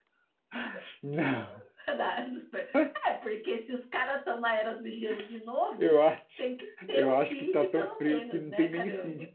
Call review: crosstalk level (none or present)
present